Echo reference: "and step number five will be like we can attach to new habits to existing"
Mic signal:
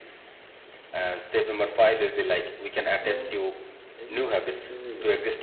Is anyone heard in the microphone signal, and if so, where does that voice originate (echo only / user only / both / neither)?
both